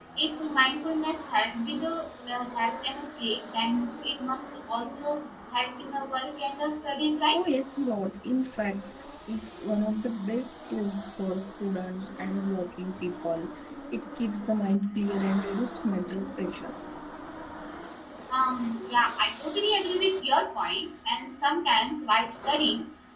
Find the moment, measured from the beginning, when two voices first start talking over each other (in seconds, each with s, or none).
none